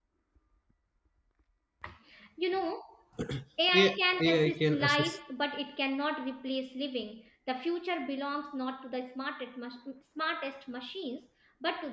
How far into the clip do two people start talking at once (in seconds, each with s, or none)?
3.7 s